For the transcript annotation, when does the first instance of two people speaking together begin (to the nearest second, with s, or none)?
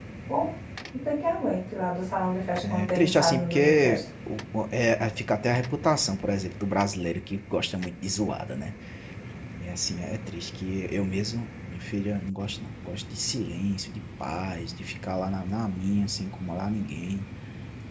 3 s